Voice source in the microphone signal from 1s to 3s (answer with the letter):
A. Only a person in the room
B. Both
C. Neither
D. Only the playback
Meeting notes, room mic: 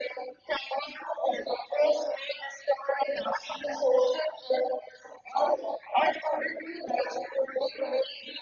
D